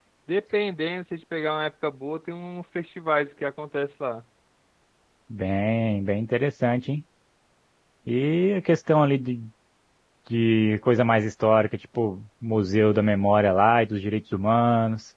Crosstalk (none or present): none